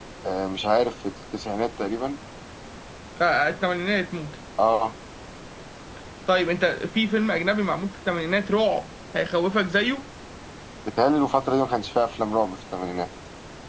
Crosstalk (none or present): none